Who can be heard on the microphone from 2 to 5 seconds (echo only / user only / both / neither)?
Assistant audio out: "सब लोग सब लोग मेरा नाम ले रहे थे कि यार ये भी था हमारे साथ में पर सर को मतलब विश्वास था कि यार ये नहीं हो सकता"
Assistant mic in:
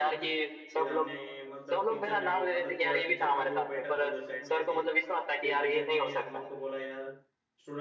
both